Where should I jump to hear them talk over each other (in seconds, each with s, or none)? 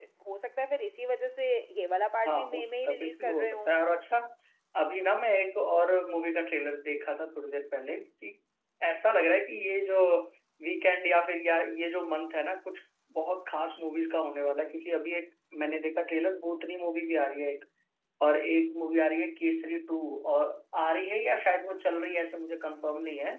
2.2 s